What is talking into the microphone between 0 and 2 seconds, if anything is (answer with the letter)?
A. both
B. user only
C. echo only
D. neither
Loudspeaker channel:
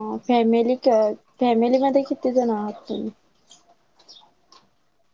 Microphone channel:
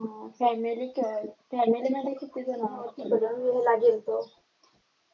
C